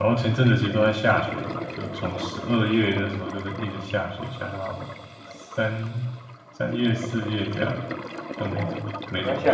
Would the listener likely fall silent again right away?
No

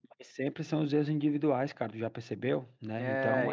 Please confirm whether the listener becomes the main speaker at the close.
Yes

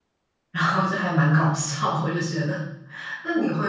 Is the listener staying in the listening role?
Yes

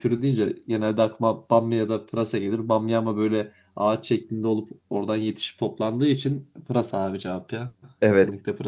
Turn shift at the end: Yes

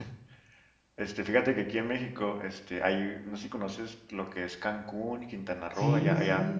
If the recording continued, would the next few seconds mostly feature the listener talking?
No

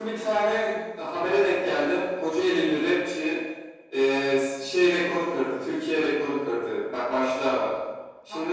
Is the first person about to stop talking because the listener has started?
No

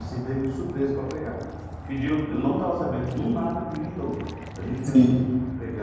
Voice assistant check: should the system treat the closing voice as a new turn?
No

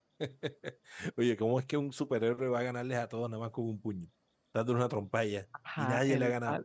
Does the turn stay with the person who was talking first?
No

